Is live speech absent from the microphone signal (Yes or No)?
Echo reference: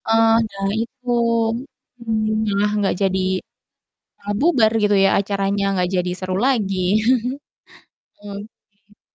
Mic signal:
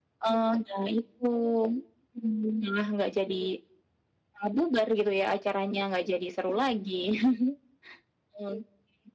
Yes